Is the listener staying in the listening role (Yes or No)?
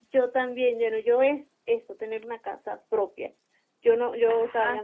Yes